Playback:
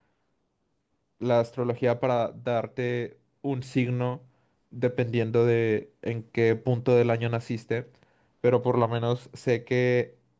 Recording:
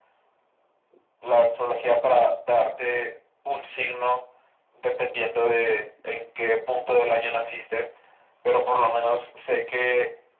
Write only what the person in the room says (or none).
none